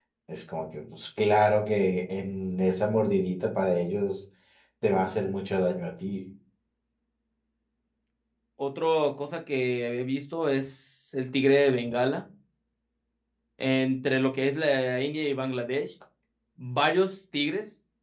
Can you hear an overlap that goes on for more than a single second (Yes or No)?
No